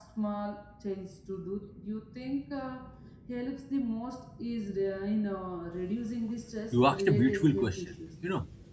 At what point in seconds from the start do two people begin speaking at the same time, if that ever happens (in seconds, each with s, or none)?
6.7 s